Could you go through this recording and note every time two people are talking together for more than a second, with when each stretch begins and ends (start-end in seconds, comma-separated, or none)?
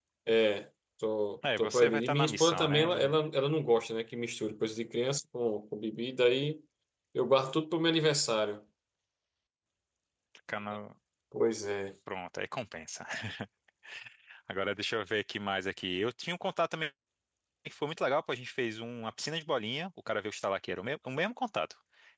1.6-3.2